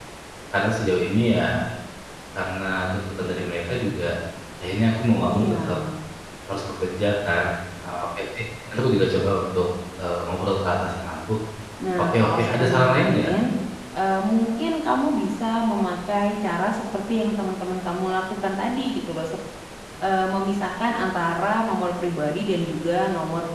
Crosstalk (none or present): present